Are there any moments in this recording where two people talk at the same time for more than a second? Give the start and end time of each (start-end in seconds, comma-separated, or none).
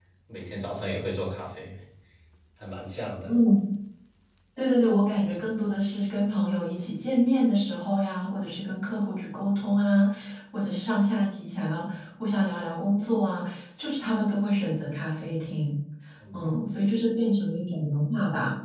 none